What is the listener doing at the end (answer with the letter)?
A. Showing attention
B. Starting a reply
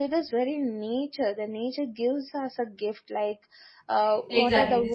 B